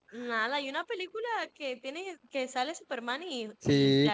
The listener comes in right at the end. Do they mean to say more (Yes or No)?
Yes